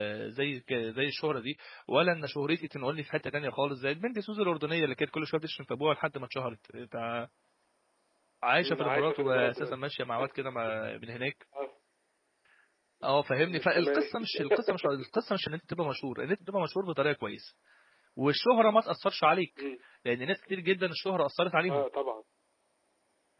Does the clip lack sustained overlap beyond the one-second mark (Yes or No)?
No